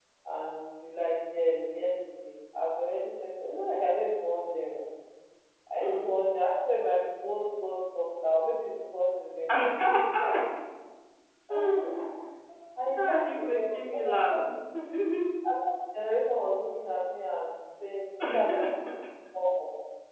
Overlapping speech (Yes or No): Yes